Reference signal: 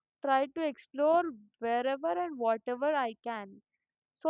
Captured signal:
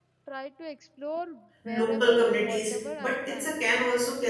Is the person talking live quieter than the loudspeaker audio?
No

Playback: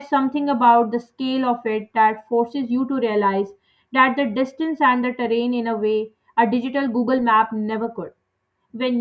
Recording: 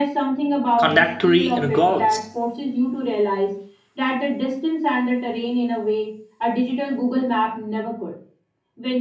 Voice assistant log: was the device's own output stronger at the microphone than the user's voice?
No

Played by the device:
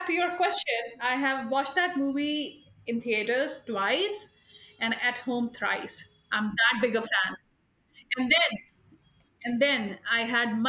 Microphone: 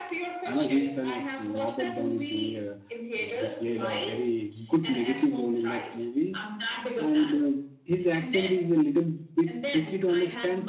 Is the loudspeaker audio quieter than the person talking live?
Yes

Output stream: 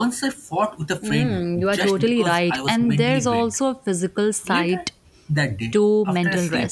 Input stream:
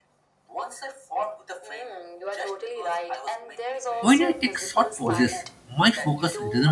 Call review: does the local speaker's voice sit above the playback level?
Yes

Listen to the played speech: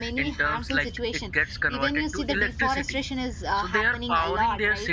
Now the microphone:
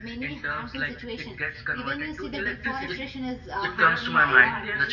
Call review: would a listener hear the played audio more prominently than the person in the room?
No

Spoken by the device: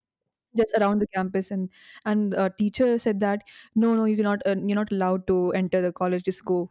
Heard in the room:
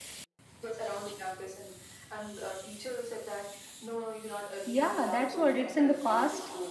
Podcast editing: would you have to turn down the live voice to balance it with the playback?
Yes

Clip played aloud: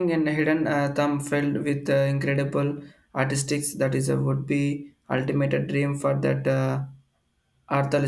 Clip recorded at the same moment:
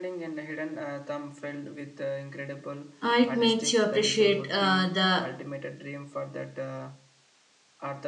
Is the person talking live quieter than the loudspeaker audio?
No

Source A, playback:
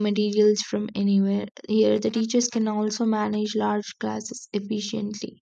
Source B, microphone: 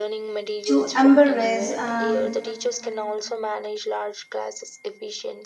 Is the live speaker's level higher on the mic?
Yes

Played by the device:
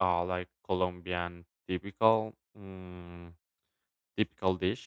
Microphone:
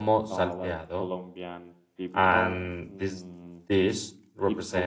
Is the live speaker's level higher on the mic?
Yes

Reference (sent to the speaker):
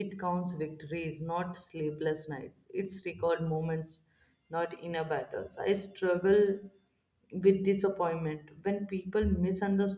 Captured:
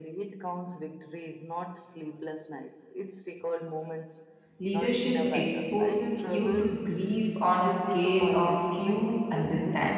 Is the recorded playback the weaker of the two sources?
Yes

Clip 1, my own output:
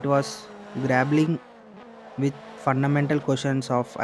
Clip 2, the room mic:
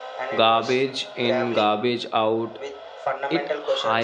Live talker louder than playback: Yes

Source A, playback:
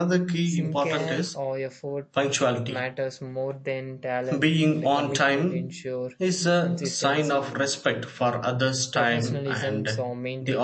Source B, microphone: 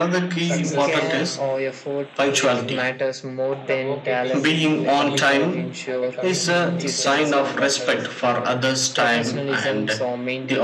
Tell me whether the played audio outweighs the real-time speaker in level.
Yes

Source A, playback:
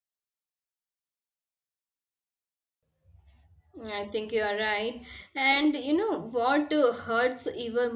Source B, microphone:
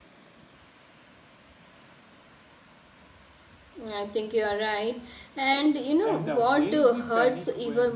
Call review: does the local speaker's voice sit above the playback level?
No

